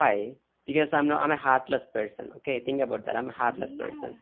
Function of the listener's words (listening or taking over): listening